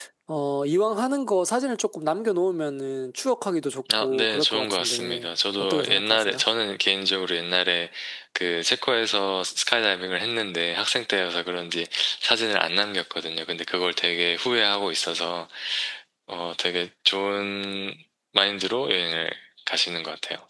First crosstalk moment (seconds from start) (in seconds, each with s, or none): 3.9 s